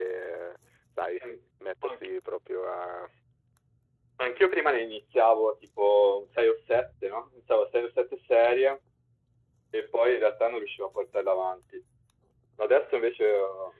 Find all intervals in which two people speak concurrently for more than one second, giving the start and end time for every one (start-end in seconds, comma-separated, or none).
none